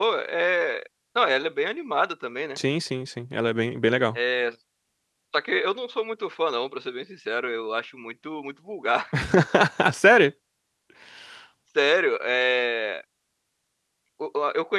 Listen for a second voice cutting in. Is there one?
No

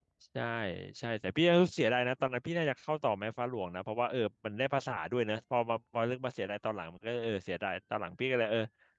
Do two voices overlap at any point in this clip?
No

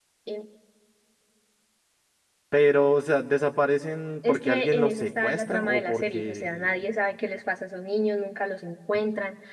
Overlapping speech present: Yes, from 4.2 s

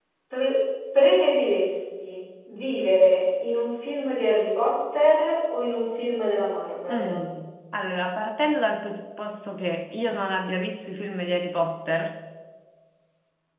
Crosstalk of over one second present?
No

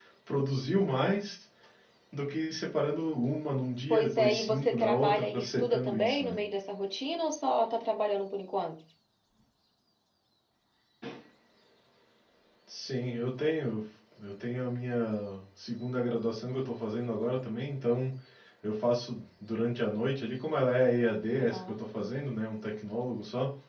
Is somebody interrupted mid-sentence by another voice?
Yes, from 3.9 s

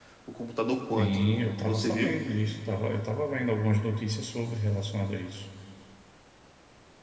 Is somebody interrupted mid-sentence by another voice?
Yes, from 1.0 s

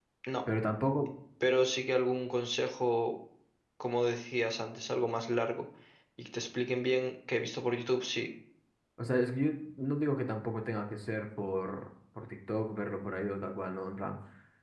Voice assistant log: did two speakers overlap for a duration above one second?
No

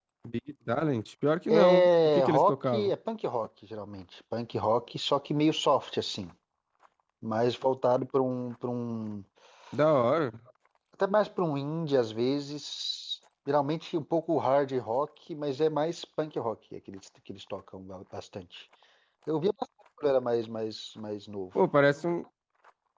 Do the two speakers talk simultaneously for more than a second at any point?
Yes, from 1.5 s

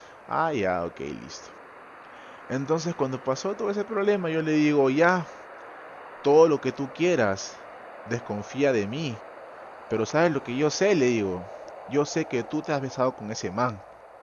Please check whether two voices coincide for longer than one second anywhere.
No

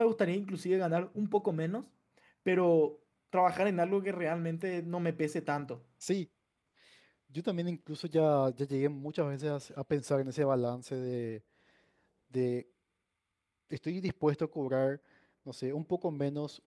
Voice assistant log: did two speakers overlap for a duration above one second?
No

